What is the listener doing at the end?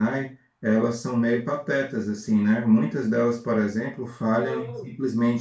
listening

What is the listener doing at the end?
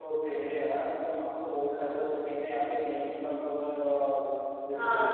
listening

